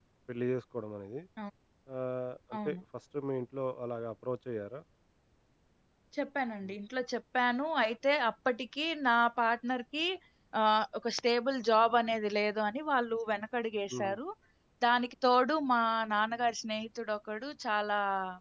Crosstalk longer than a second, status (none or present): none